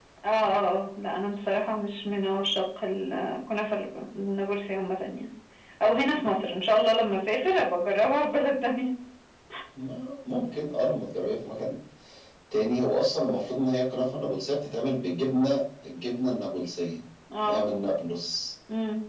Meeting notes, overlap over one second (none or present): none